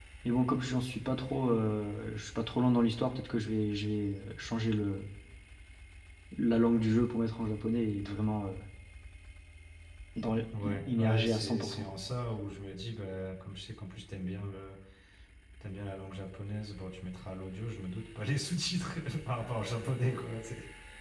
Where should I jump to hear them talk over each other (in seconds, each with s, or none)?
10.6 s